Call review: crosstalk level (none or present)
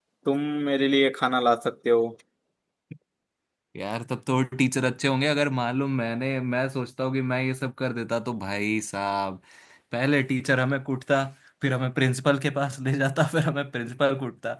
none